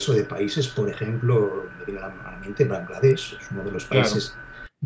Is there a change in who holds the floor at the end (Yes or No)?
No